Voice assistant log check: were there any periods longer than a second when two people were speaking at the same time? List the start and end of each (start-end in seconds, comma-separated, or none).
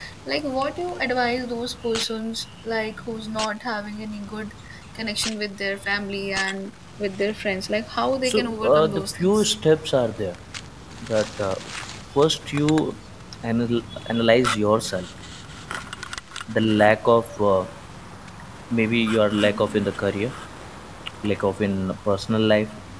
8.2-9.4